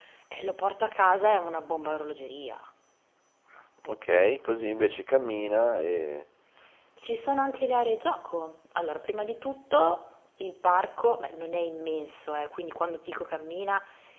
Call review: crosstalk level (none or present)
none